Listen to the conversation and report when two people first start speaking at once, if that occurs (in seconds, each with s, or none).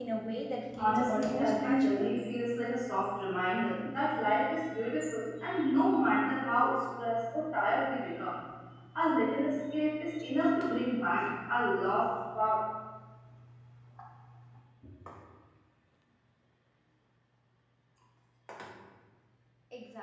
0.8 s